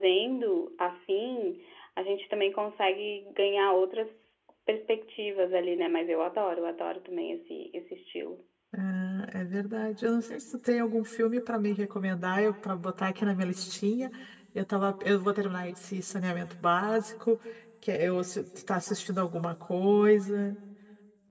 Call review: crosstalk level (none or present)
none